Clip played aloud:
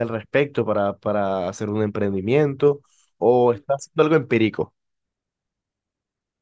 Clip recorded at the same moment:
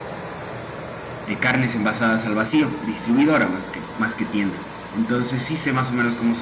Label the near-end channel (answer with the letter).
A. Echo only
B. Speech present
B